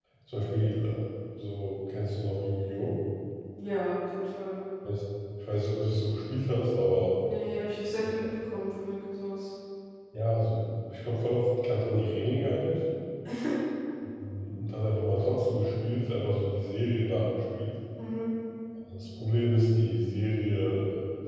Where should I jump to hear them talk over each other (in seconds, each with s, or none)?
none